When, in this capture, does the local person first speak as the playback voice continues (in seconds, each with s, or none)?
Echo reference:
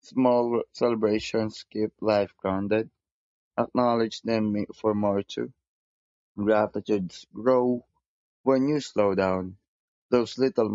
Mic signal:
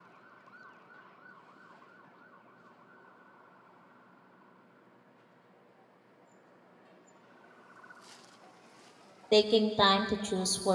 9.3 s